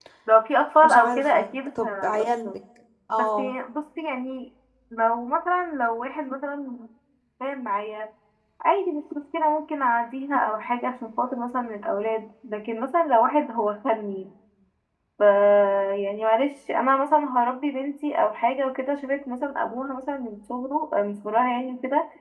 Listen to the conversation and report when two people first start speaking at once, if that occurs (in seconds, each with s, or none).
0.8 s